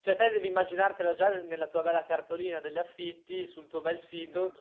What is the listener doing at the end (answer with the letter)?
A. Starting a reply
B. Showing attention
B